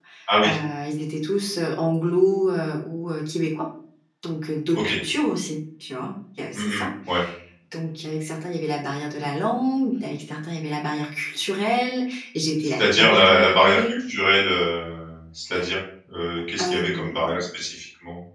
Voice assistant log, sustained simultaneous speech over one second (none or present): present